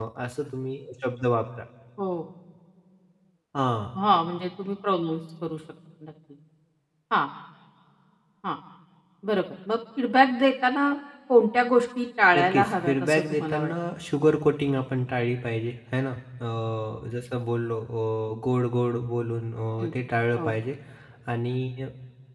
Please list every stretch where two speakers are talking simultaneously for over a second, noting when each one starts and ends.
12.3-13.7

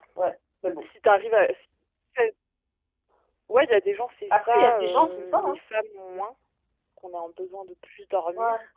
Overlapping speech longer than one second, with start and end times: 4.3-5.6

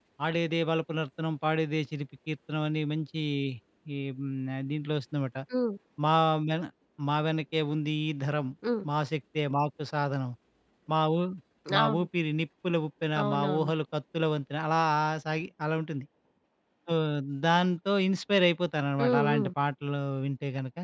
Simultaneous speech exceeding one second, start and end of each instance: none

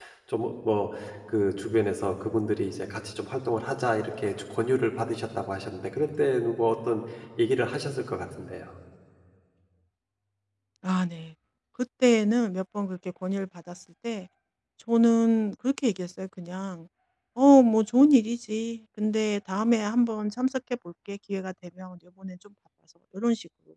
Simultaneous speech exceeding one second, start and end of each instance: none

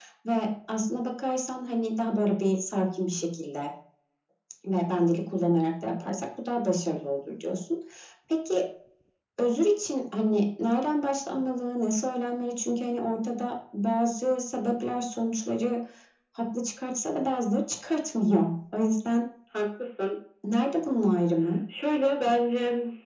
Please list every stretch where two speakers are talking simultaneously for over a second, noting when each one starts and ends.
none

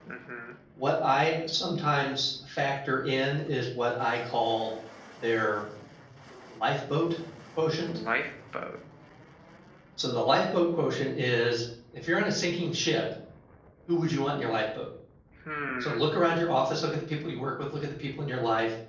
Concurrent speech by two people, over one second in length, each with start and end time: none

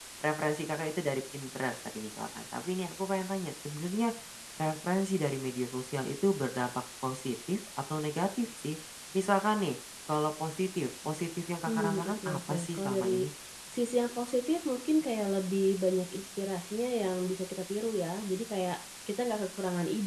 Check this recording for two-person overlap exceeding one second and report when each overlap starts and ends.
11.7-13.3

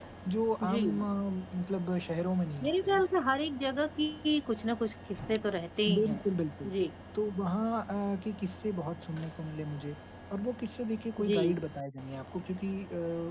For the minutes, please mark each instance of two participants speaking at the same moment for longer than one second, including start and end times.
none

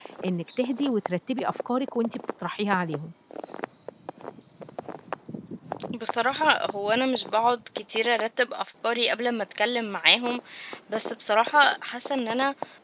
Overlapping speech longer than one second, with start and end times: none

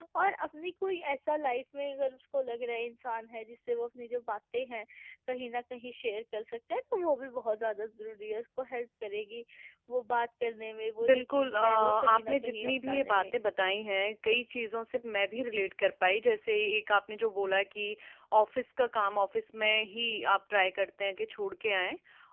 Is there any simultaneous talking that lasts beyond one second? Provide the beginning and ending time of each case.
11.1-13.3

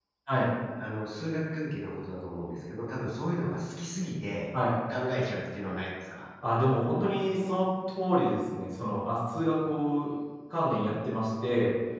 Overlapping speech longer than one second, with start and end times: none

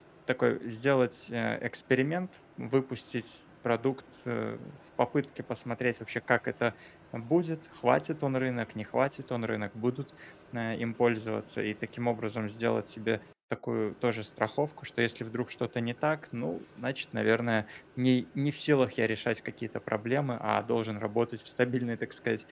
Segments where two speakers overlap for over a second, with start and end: none

